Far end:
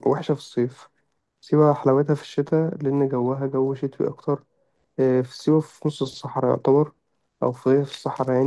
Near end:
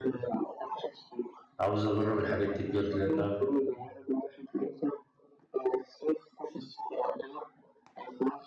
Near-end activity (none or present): present